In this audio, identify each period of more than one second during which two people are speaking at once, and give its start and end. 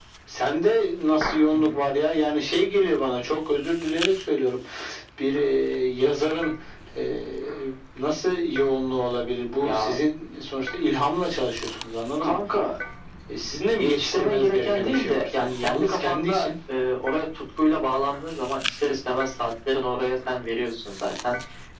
13.8-16.5

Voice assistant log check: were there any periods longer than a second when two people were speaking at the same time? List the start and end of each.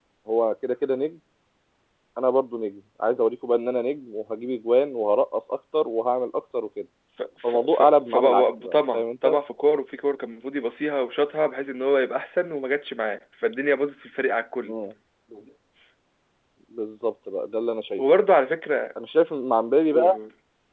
7.5-9.4

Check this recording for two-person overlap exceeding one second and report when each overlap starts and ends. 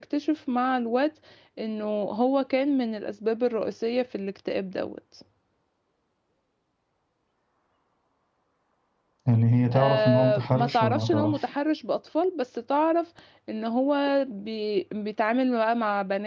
9.7-11.4

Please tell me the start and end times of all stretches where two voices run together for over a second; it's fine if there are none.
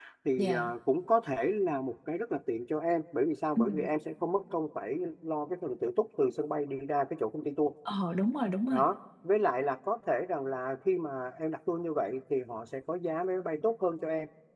none

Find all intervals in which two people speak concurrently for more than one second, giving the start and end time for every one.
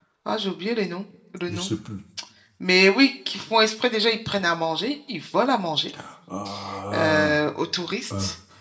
none

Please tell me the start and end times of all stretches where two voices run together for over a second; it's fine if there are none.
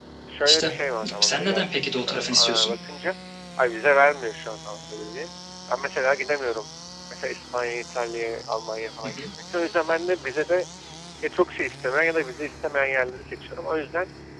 1.2-2.7

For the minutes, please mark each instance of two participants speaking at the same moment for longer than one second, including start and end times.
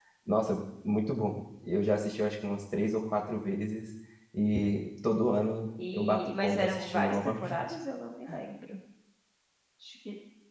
5.9-7.6

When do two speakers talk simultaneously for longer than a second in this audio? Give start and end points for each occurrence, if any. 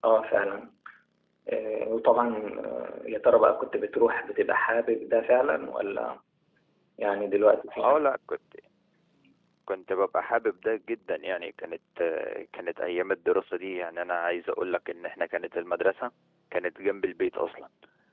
none

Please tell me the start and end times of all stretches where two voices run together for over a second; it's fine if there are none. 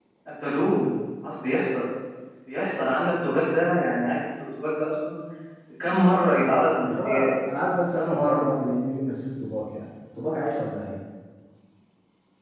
none

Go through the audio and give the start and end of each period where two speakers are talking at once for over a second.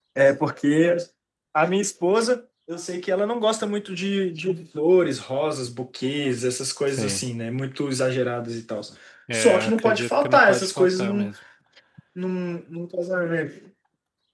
9.3-11.3

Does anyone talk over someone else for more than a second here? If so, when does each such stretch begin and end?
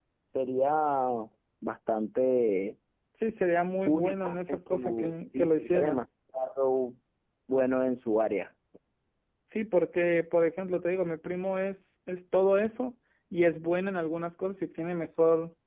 3.9-6.0

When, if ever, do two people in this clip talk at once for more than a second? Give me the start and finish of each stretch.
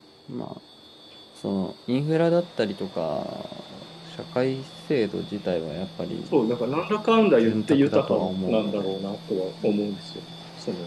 7.4-8.9

